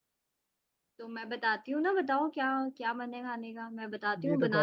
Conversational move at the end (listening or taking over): taking over